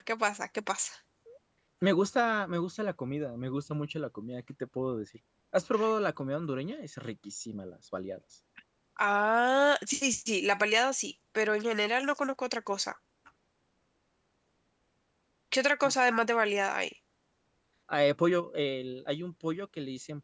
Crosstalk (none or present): none